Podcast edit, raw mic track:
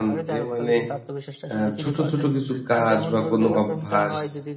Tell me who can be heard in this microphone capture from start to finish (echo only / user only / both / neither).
both